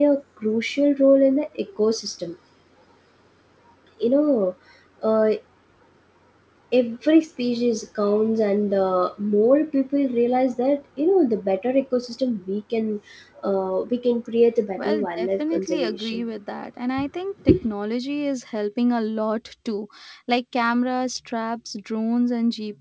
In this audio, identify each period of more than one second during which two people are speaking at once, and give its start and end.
14.8-16.2

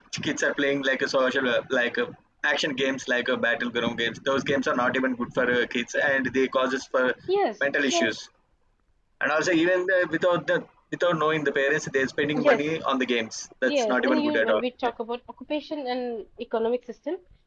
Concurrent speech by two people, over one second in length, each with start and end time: 13.7-14.9

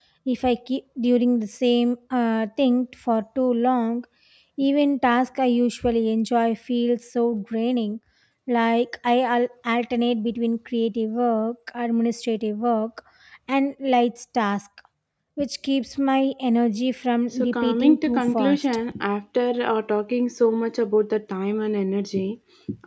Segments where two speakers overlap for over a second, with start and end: 17.3-18.6

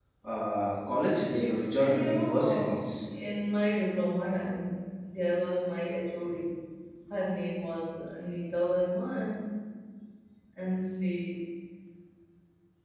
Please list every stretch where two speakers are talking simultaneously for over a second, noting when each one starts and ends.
1.2-2.9

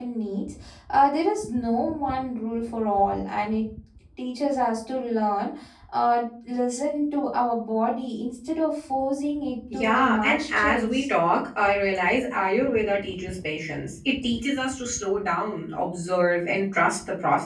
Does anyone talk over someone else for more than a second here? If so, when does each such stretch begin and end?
9.7-11.1

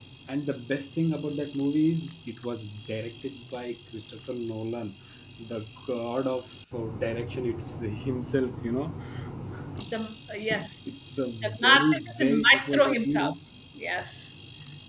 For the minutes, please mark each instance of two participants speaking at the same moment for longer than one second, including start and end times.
11.4-13.3

